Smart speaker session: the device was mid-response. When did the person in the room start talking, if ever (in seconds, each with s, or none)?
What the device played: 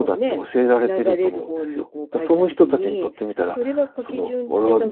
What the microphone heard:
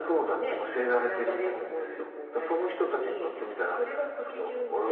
none